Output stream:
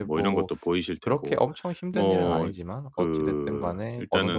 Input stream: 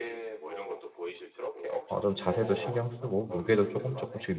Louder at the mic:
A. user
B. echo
A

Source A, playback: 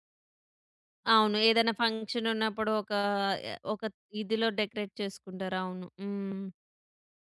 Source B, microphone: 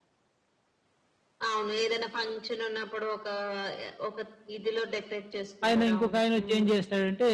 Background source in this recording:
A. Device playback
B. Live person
A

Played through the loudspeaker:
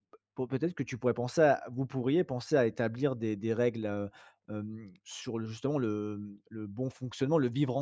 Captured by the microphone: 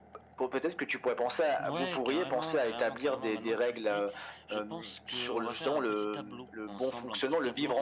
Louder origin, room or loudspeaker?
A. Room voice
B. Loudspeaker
B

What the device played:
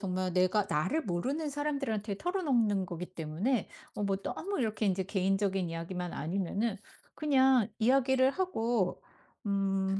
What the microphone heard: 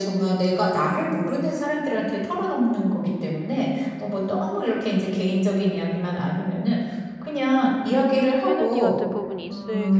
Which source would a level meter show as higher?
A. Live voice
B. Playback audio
B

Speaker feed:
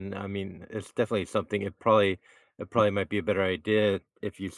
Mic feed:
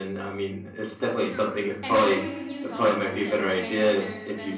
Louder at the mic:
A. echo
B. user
A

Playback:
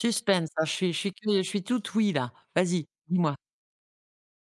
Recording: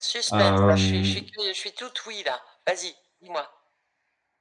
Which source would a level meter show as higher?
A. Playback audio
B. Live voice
B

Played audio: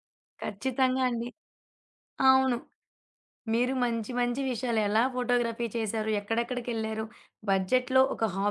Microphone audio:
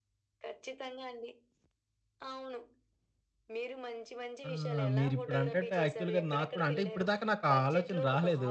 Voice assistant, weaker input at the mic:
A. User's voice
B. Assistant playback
B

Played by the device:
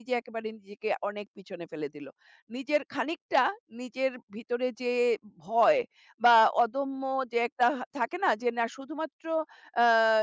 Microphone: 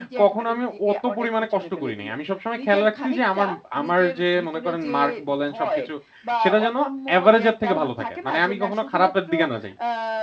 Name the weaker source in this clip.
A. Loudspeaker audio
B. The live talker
A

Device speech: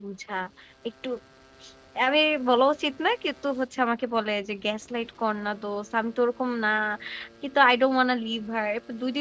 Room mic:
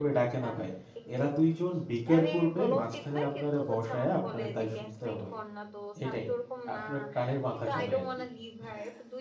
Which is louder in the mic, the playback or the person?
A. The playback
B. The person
B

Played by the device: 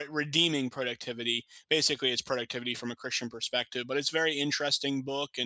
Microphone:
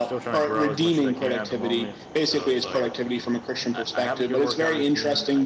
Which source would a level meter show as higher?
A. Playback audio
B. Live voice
A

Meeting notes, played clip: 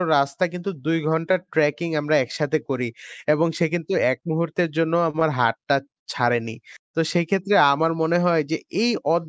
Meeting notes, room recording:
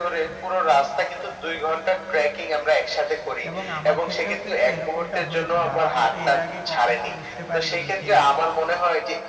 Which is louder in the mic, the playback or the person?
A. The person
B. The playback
B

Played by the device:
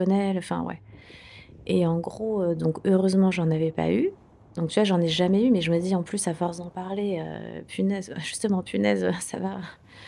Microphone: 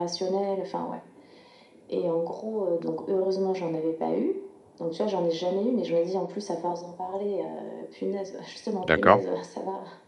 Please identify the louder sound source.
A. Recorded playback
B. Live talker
B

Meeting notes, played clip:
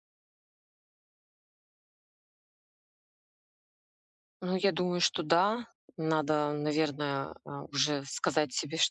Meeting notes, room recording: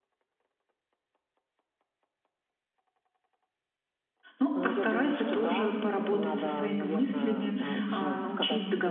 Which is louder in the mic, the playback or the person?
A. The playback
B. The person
B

